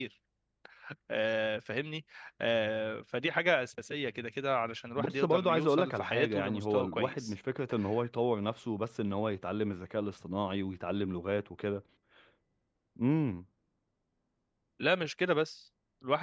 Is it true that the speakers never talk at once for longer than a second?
No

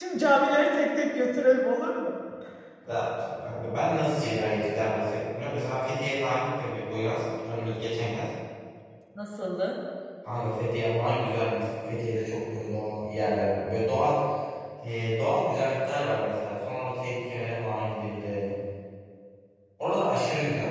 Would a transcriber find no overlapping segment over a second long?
Yes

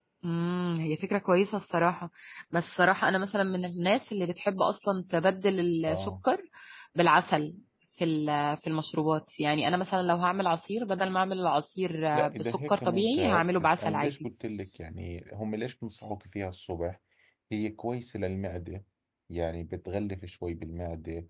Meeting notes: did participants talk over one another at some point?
Yes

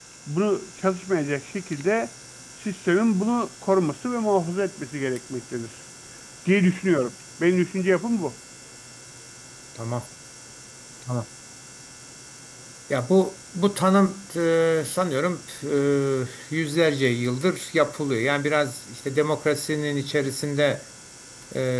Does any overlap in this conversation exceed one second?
No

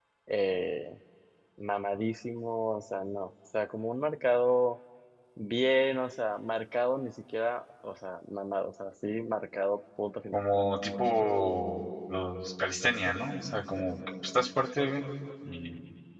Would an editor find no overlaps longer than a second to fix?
Yes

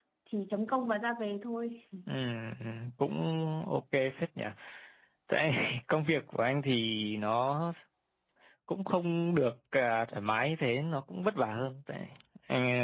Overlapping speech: No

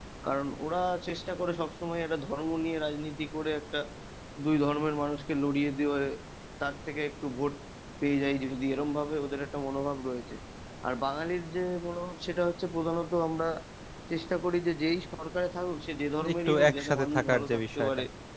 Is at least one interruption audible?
Yes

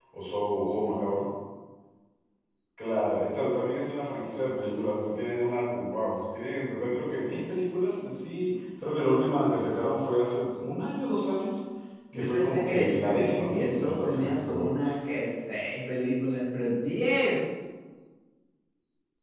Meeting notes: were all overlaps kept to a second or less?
No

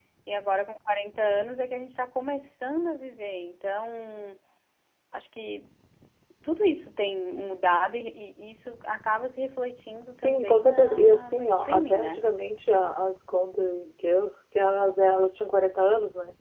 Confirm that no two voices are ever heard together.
No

